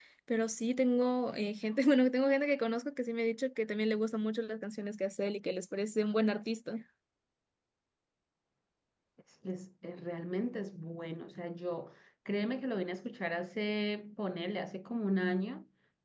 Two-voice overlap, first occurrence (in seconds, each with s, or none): none